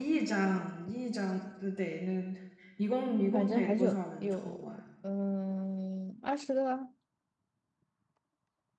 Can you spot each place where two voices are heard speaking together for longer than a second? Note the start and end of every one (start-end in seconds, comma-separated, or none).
3.3-4.7